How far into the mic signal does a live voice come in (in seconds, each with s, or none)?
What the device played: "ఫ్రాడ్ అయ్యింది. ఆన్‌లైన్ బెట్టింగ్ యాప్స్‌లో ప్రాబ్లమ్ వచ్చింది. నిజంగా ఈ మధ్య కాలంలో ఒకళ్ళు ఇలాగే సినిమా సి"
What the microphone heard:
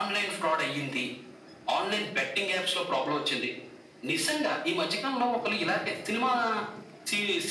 none